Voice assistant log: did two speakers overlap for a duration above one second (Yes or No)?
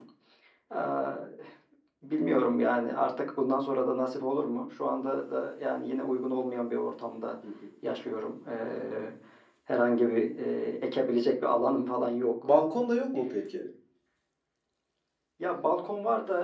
No